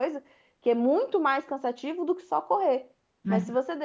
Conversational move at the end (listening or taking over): listening